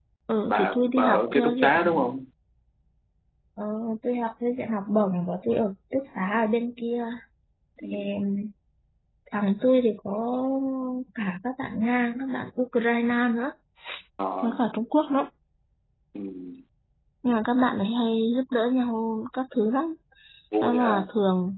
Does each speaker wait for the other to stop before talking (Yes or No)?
No